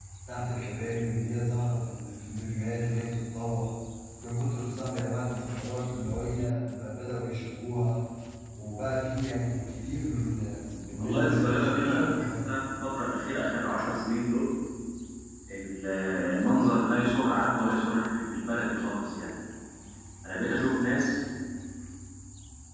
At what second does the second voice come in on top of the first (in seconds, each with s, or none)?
11.0 s